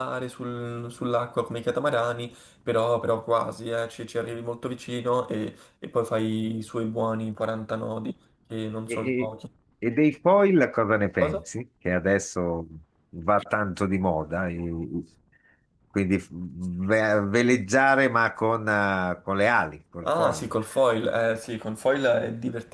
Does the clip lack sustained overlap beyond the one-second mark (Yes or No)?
Yes